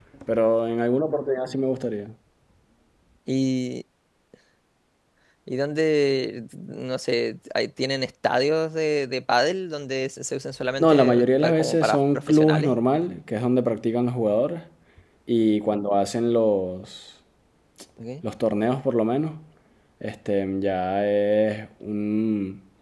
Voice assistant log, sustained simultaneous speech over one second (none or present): present